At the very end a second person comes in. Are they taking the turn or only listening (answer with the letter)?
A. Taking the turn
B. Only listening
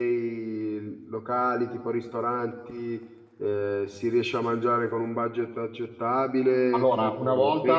A